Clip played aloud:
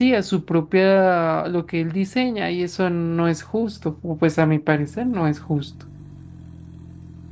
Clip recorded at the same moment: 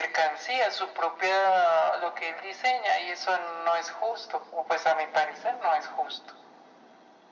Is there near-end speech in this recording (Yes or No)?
No